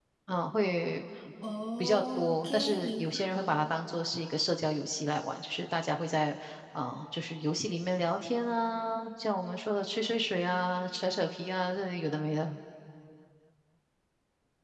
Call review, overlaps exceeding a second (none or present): present